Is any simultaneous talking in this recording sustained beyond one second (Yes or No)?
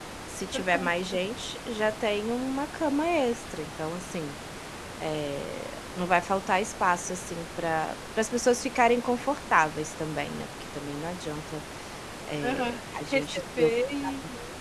Yes